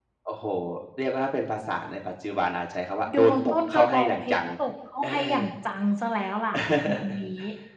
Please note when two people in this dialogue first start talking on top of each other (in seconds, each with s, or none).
3.1 s